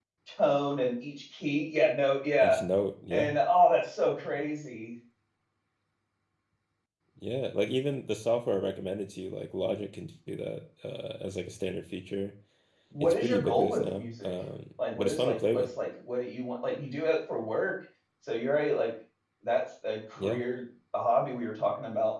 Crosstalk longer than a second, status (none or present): present